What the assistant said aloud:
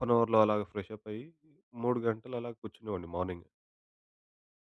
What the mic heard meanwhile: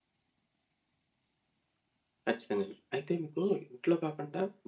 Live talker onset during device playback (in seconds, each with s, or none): 2.3 s